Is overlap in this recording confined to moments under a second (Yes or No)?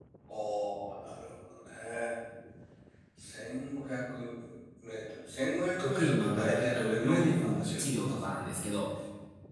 No